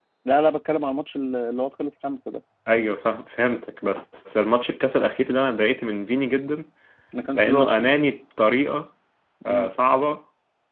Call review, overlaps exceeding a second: none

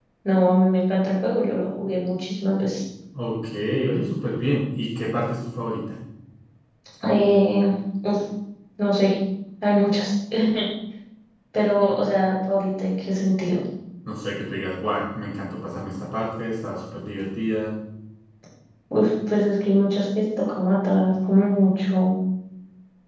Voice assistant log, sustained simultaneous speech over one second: none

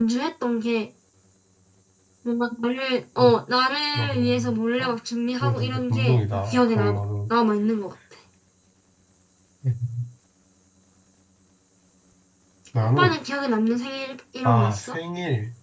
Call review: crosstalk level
present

